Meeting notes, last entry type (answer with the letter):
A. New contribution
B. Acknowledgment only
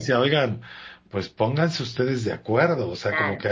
B